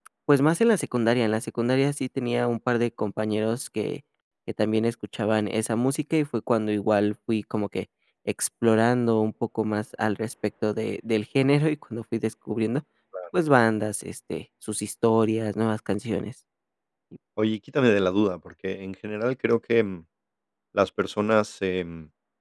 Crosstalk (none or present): none